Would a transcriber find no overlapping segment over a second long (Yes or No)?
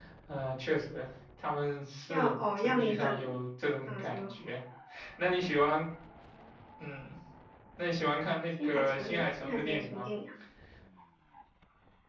No